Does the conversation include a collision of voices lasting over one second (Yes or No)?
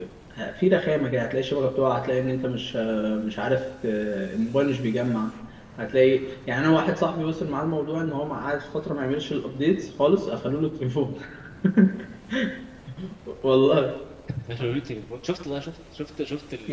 No